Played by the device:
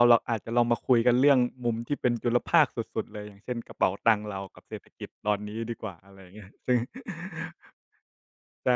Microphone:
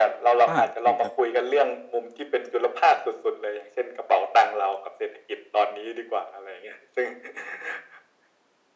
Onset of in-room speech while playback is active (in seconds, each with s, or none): 0.5 s